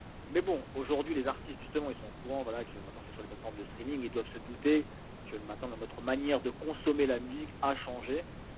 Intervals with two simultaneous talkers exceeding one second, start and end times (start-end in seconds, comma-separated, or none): none